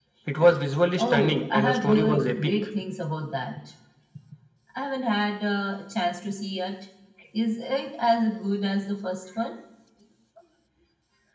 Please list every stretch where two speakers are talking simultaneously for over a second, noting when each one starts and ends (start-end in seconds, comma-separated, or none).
1.0-2.5